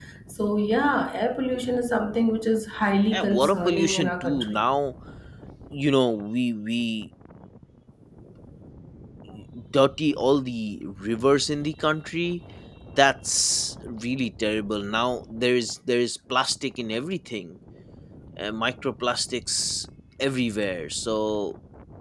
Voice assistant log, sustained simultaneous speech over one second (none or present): present